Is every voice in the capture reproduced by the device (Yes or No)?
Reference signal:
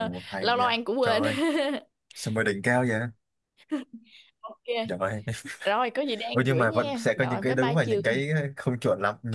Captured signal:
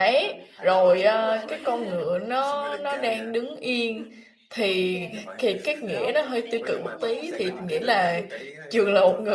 No